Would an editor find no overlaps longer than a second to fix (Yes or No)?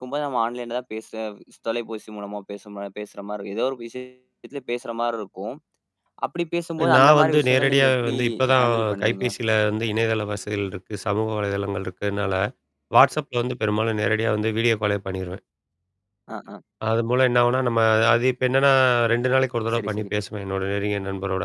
No